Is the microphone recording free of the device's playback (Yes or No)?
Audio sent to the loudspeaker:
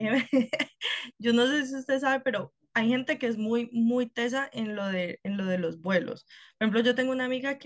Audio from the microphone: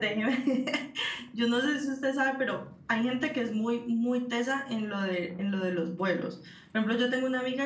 No